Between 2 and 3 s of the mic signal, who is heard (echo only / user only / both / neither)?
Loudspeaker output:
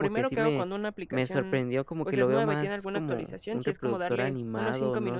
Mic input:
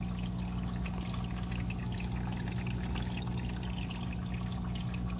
neither